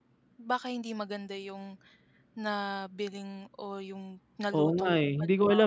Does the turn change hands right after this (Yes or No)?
Yes